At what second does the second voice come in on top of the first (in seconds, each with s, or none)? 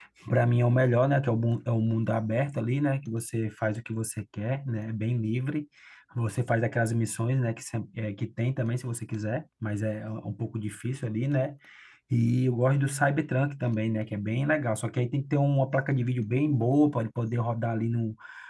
none